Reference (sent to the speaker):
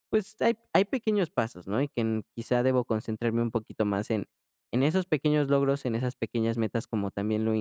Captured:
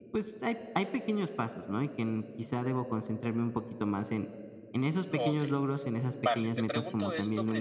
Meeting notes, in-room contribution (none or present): present